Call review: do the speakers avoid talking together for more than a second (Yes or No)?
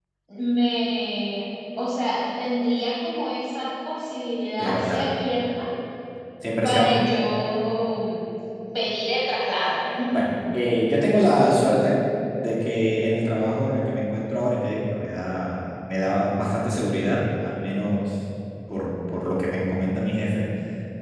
Yes